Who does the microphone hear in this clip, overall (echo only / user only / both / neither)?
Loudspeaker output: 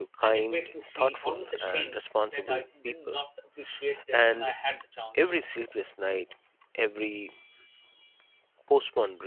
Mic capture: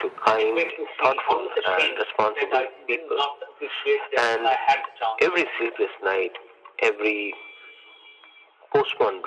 echo only